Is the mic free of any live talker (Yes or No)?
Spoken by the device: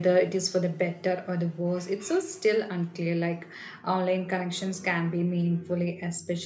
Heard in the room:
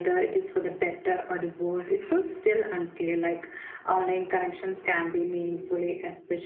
Yes